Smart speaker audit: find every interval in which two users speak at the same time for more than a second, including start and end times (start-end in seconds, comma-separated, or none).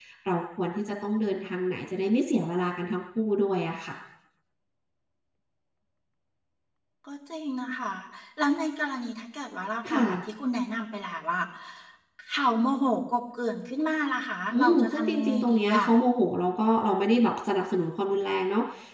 14.5-15.9